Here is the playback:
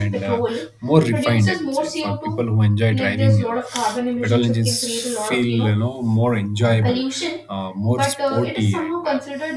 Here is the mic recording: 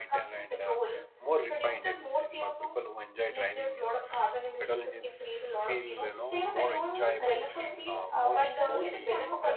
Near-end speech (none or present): present